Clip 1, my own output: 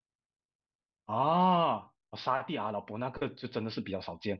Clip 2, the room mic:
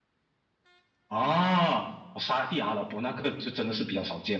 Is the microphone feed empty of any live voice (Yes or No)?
Yes